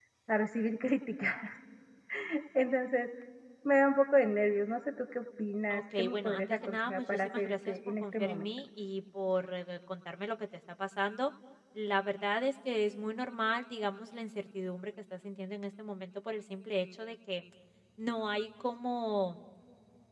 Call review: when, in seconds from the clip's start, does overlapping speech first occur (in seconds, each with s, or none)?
5.7 s